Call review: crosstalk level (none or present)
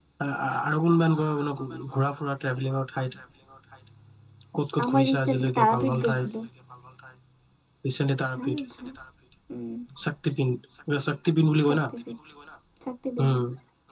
present